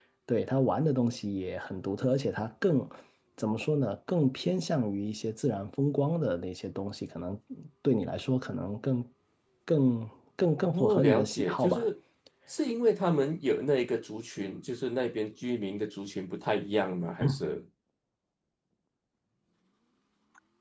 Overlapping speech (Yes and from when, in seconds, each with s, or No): Yes, from 10.6 s